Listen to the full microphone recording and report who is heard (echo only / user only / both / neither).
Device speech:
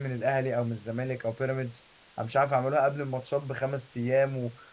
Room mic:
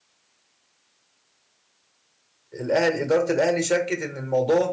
user only